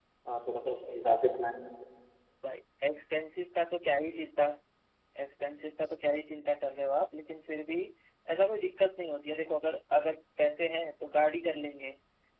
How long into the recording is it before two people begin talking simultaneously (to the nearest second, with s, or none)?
none